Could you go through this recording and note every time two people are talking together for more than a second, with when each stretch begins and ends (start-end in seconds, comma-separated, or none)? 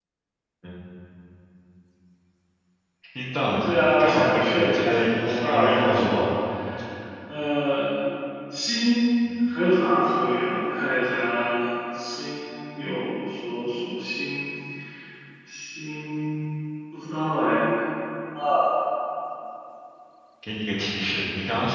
3.6-6.2